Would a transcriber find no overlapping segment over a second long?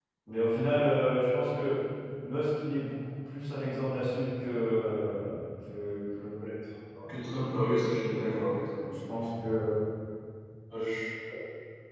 Yes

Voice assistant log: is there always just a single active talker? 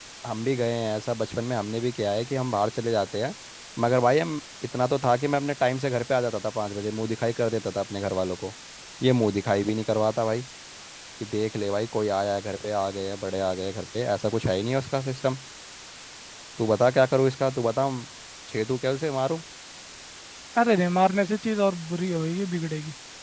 Yes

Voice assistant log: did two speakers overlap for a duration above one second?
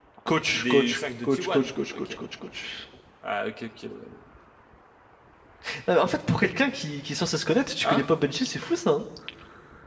Yes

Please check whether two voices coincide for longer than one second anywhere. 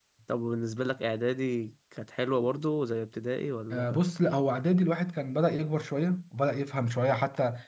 No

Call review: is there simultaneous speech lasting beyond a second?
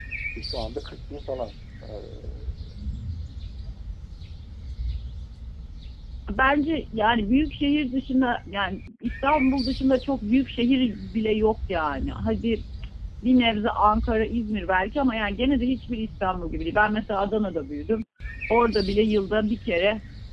No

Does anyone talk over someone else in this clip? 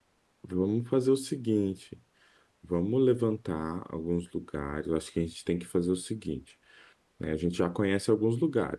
No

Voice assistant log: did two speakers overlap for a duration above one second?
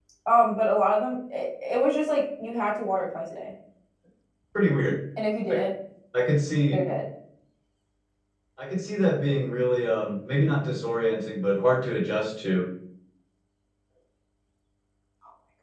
No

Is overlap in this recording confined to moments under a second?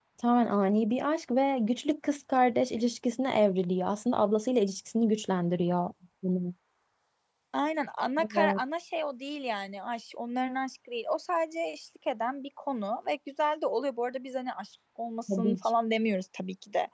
Yes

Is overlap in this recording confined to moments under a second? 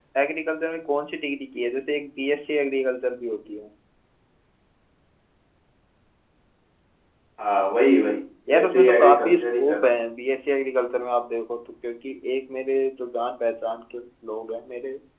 No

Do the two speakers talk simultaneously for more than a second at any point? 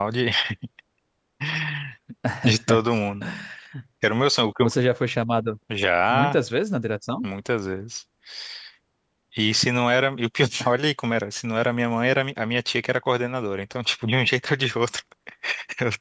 No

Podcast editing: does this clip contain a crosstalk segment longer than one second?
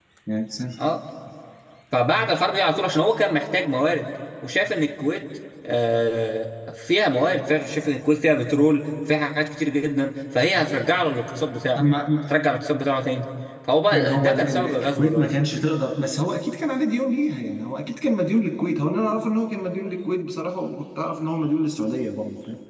Yes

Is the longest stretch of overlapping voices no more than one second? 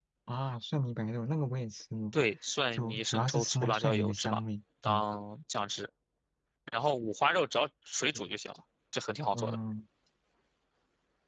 No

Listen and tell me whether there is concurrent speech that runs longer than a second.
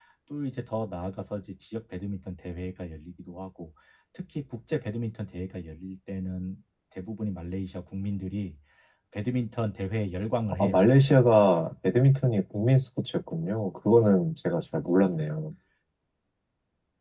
No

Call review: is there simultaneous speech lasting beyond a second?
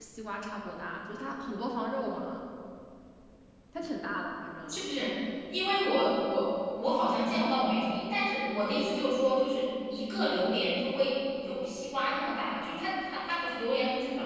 No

